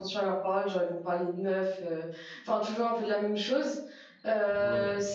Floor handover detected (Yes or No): No